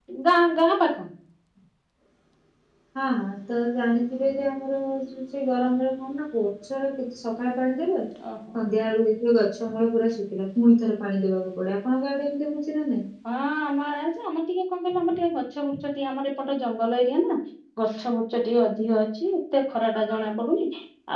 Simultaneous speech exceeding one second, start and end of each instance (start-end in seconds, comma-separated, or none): none